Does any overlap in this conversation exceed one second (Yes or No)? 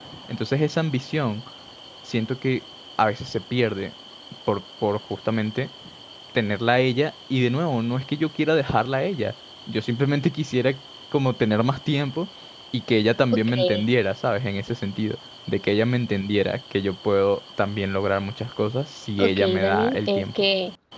Yes